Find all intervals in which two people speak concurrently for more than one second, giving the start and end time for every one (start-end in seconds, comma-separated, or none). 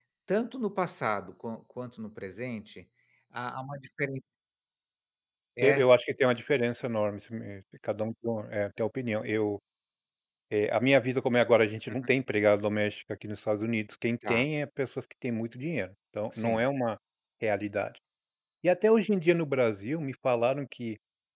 none